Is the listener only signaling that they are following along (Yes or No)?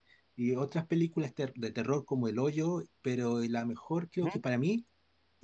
Yes